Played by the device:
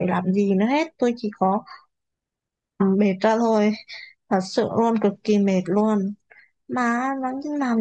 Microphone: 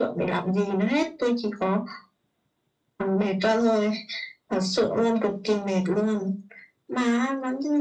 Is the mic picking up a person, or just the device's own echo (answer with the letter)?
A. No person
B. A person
A